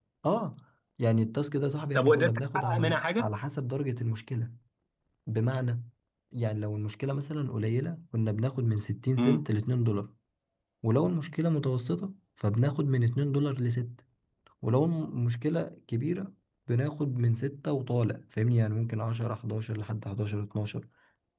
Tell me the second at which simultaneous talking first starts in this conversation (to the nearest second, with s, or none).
2 s